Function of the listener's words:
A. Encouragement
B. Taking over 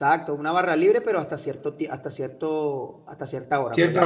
A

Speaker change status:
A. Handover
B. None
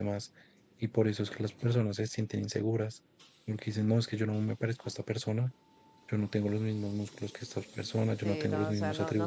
A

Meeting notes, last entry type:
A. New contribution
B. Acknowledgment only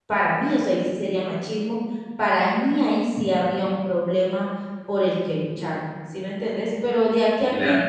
B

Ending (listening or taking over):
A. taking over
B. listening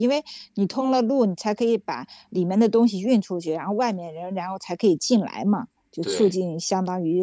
B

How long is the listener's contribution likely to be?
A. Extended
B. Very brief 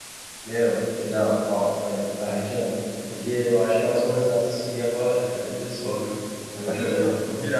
A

